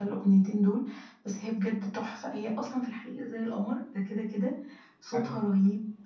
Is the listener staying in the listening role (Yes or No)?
Yes